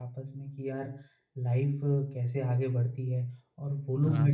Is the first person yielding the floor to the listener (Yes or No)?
No